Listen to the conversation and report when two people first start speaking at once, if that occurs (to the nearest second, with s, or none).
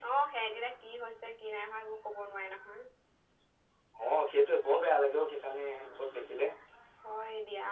none